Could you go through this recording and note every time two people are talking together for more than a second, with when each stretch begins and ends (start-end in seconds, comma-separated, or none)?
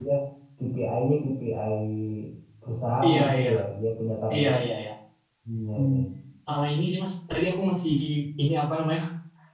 none